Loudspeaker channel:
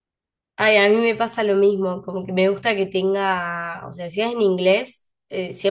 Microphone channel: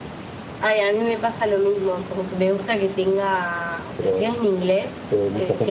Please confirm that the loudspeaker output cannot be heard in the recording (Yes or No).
No